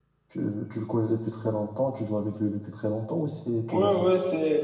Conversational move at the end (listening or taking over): taking over